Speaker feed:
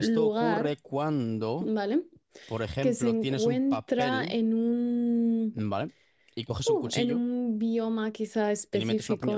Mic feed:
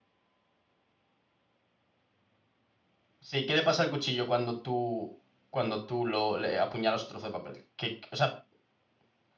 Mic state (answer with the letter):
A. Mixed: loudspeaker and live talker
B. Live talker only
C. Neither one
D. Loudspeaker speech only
B